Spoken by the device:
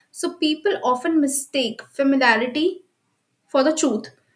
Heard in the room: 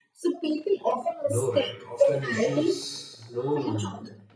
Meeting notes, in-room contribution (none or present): present